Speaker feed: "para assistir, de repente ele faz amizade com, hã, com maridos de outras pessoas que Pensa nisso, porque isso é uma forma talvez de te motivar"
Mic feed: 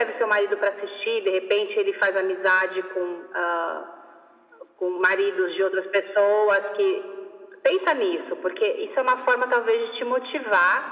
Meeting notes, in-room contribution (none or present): none